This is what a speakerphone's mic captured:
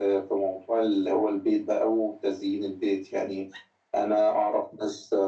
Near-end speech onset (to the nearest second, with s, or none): none